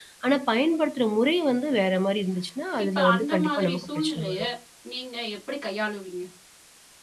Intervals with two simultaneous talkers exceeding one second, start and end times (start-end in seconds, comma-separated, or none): 3.0-4.4